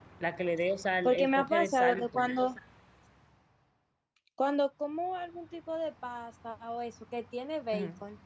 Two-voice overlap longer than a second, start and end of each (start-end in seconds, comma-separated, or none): 1.1-2.4